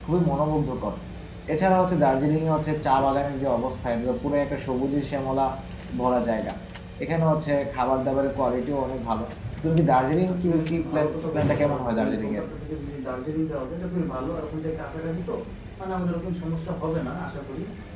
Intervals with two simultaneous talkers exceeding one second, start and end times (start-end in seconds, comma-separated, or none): 10.3-12.4